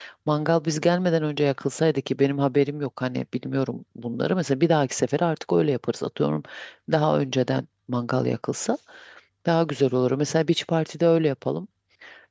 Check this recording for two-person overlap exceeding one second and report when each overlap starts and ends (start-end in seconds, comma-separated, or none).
none